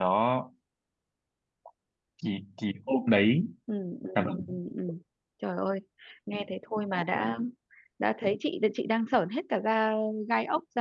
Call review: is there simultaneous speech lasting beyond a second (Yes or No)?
No